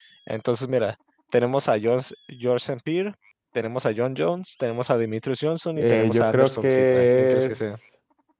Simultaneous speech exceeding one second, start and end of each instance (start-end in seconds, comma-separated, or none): 5.8-7.6